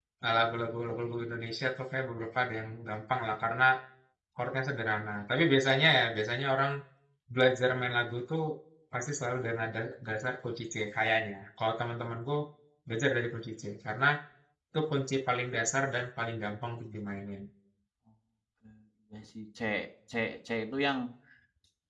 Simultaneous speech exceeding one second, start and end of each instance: none

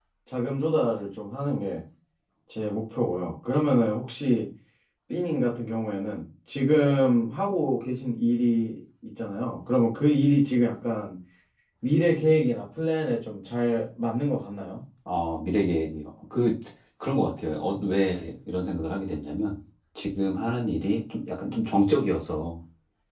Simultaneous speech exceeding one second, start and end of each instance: none

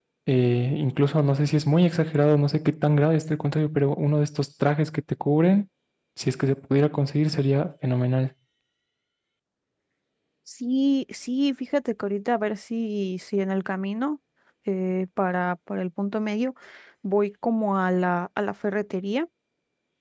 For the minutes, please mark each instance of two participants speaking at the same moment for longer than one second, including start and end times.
none

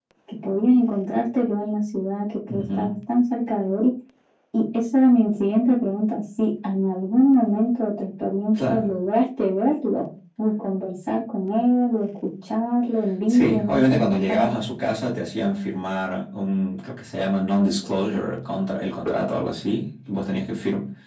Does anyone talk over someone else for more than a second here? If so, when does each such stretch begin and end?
13.3-14.5

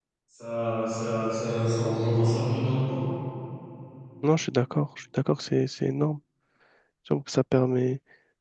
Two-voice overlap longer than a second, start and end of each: none

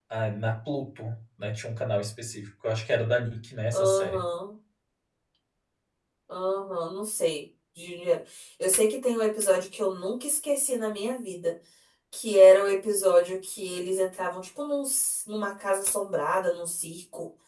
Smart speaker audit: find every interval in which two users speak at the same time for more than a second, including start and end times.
none

